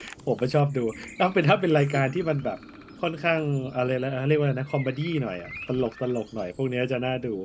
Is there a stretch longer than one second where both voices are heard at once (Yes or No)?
No